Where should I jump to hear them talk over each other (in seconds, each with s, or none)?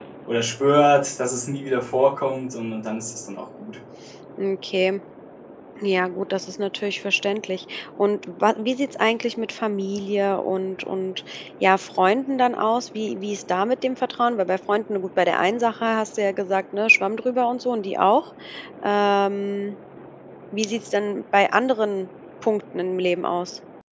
none